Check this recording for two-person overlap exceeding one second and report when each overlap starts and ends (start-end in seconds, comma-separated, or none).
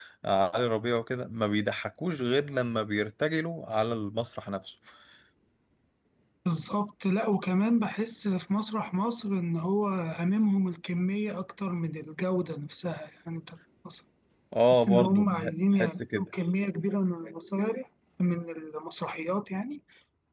14.7-16.3